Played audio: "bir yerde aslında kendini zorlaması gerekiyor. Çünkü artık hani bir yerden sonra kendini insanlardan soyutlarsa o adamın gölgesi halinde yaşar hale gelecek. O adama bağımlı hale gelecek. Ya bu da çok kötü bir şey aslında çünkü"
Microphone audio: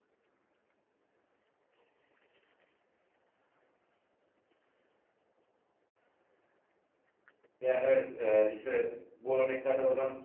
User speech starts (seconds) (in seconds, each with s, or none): 7.6 s